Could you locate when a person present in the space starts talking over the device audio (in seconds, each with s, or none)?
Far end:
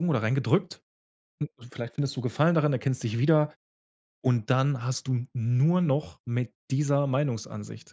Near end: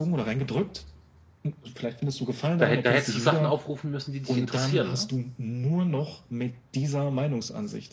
2.6 s